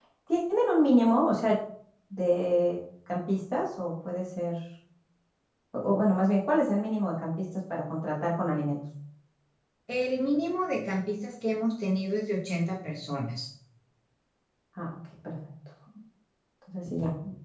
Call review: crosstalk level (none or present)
none